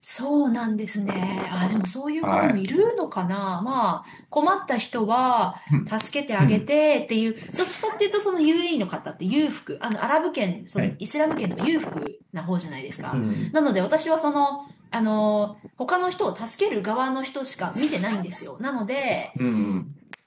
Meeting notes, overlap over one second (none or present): none